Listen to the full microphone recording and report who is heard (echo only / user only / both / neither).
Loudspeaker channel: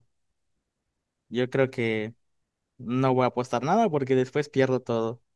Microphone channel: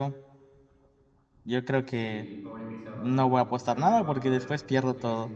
both